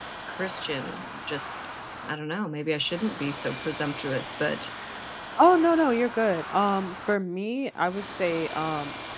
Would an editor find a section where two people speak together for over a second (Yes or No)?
No